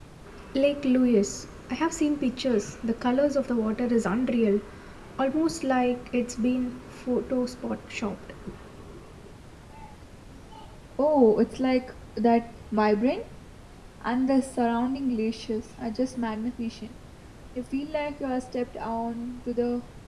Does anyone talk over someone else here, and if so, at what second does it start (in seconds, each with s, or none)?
none